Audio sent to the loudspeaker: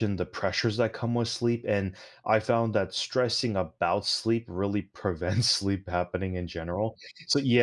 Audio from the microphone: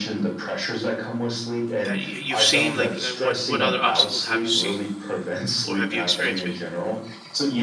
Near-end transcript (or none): that you, you've seen like uh, what what other obstacles have you seen or have you experienced maybe? Mhm.